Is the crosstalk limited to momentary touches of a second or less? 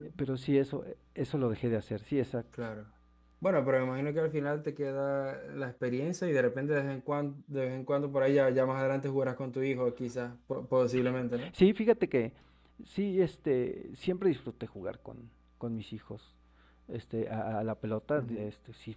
Yes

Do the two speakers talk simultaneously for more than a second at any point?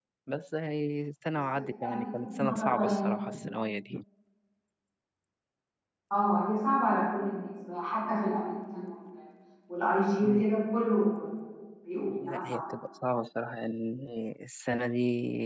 Yes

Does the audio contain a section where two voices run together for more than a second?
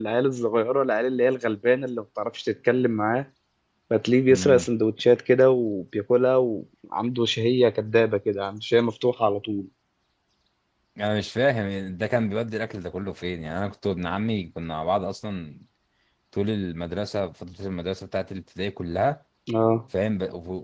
No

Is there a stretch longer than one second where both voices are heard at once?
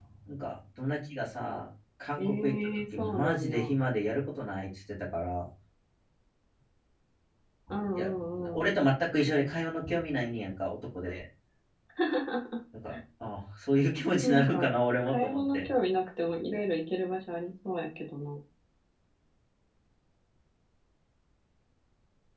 Yes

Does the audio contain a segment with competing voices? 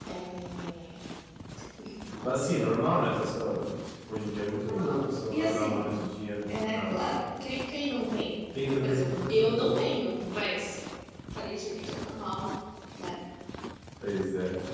Yes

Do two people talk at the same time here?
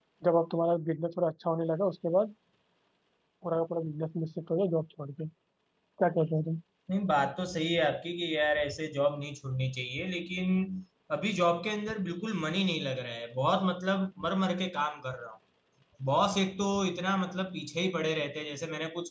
No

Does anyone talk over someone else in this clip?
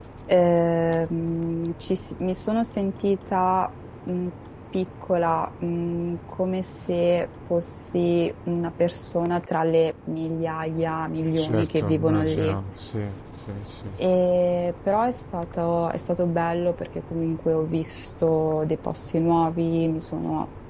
Yes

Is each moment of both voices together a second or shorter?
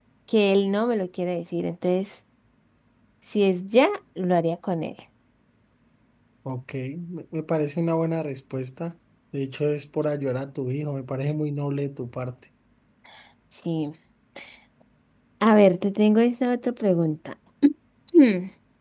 Yes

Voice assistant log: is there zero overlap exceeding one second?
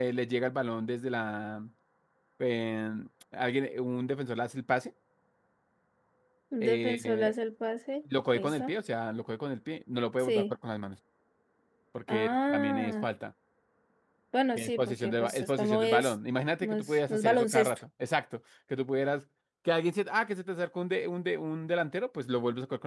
No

